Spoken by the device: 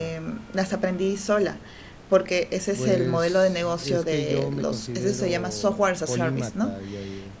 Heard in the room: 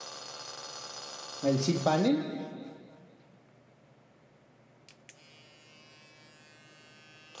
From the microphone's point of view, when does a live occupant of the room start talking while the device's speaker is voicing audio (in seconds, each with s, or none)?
1.4 s